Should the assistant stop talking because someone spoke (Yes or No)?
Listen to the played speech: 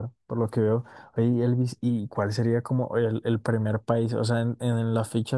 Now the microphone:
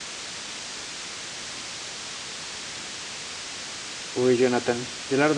Yes